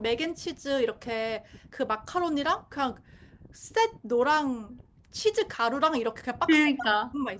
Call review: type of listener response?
listening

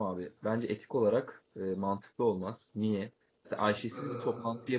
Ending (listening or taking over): listening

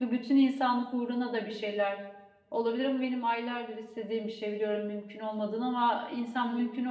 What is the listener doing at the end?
listening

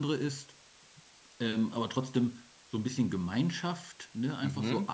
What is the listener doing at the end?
listening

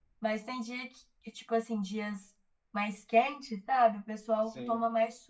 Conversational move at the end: listening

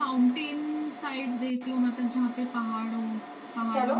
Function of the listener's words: listening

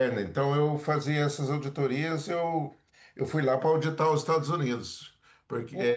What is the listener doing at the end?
listening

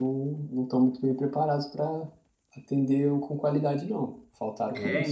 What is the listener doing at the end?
taking over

